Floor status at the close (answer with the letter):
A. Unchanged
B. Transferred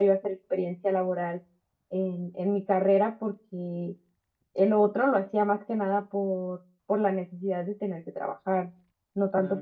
A